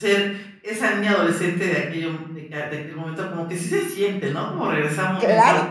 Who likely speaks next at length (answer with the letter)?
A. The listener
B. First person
A